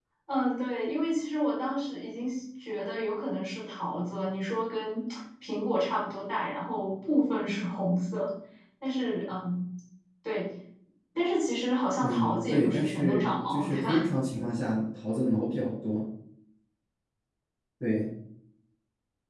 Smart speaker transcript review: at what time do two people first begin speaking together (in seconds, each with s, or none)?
12.0 s